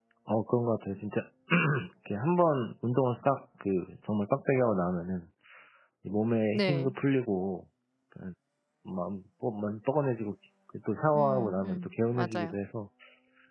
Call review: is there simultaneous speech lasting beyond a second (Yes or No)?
Yes